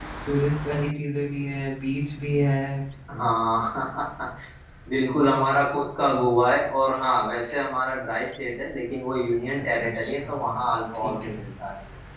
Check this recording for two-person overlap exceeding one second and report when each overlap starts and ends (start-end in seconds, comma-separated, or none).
9.7-11.4